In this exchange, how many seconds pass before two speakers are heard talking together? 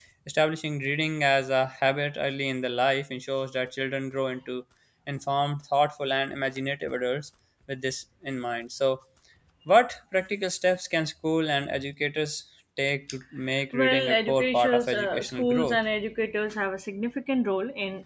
14 s

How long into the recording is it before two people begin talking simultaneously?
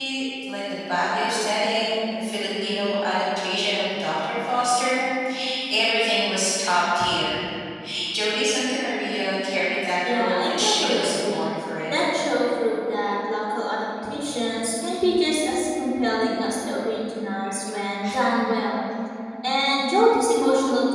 10 s

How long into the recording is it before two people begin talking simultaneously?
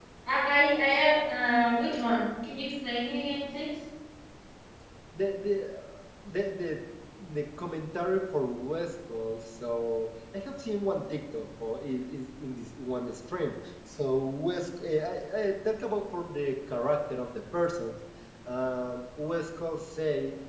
none

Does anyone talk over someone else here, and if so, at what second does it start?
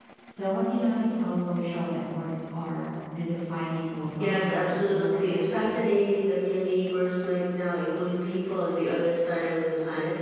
4 s

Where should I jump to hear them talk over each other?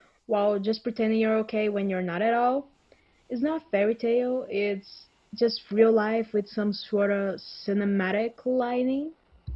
none

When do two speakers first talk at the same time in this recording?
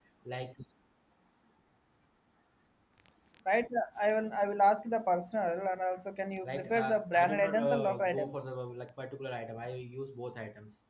6 s

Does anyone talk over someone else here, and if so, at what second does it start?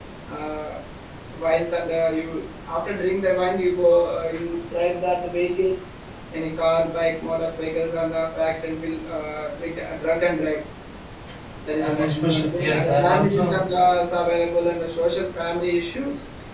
12 s

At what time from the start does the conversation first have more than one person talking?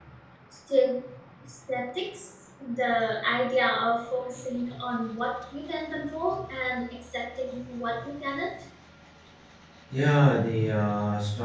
none

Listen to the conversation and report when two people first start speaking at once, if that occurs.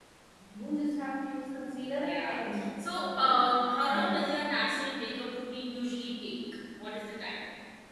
2 s

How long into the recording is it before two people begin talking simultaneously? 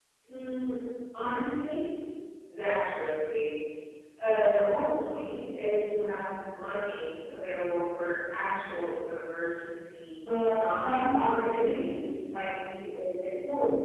10 s

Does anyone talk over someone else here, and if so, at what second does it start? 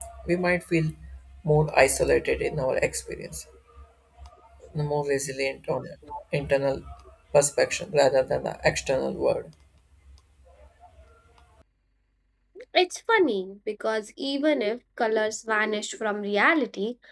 none

